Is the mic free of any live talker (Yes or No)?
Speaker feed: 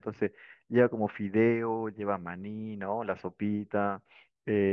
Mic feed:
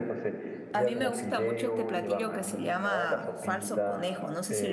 No